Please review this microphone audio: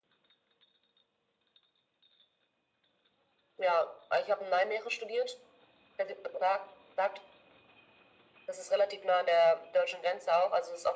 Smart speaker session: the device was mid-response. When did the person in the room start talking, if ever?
none

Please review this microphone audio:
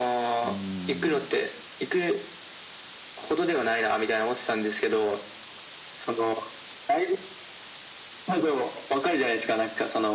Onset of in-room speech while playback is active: 0.4 s

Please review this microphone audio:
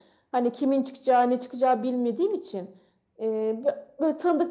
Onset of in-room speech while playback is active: none

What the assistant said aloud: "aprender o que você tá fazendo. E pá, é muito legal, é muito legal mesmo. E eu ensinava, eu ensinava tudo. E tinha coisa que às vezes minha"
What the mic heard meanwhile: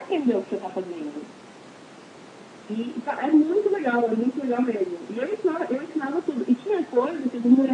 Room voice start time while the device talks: none

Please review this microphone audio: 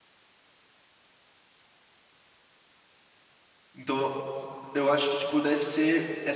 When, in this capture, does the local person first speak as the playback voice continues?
3.7 s

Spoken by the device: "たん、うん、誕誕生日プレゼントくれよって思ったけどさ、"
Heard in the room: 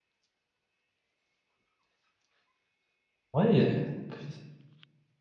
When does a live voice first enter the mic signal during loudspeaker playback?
3.3 s

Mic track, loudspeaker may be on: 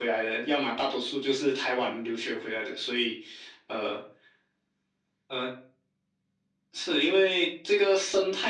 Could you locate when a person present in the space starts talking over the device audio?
none

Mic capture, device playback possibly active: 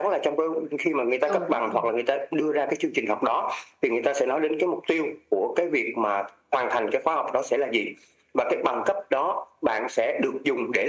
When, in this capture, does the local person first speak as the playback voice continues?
1.2 s

